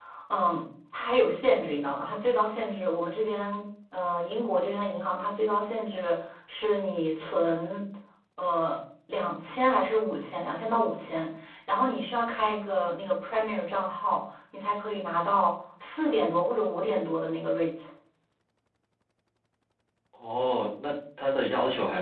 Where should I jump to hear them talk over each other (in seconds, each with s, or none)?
none